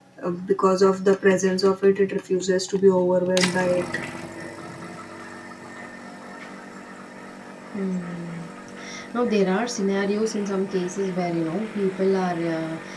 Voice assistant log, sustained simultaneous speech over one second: none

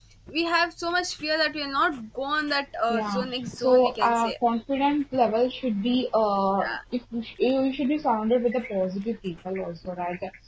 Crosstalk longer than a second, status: present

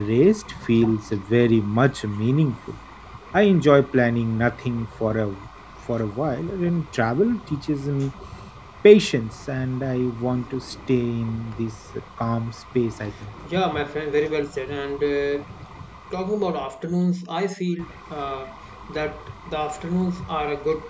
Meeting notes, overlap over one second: none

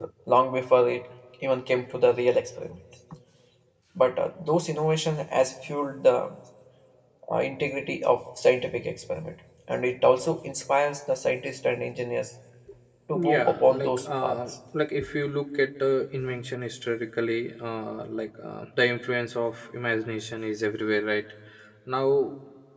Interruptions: present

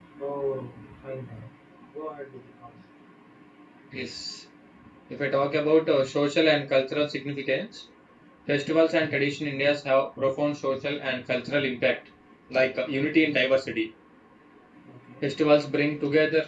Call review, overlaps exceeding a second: none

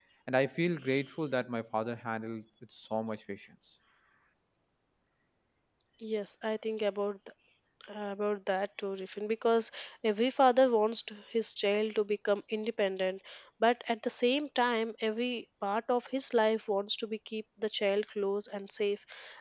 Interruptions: none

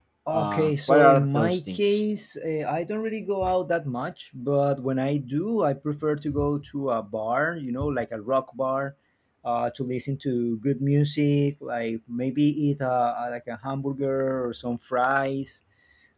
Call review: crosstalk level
present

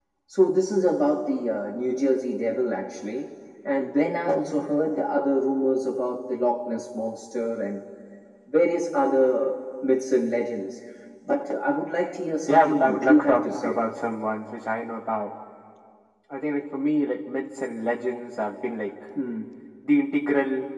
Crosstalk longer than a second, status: present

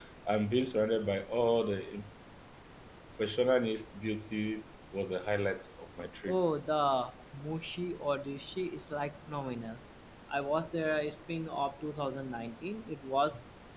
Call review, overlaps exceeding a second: none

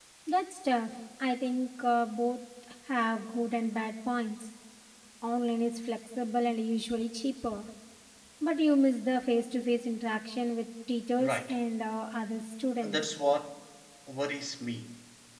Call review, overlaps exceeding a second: none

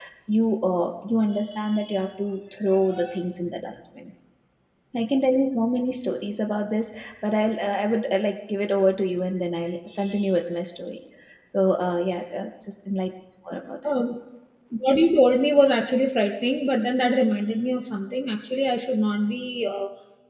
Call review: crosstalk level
none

